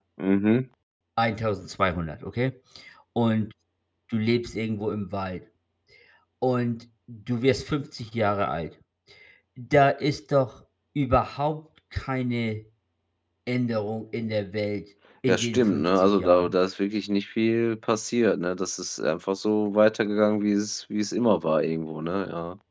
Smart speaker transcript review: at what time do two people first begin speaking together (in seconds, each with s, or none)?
15.3 s